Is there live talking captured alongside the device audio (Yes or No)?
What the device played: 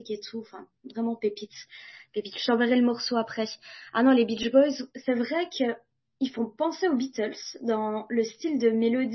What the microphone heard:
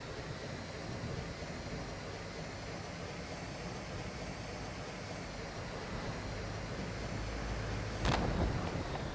No